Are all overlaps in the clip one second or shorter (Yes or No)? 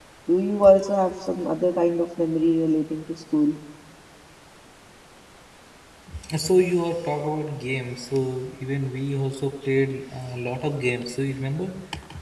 Yes